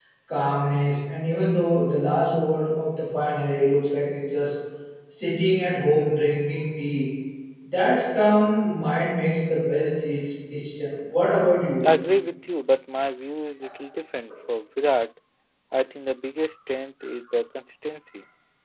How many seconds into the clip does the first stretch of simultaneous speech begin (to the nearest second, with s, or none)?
none